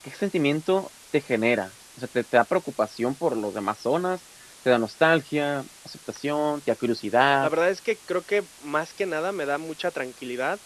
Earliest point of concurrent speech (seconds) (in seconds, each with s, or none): none